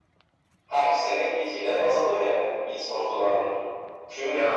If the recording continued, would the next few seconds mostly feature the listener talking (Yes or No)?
No